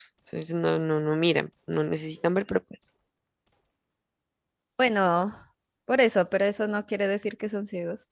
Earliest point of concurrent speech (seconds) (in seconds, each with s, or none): none